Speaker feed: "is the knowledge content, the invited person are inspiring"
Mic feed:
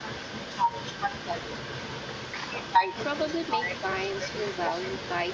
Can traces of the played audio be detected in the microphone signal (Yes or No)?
Yes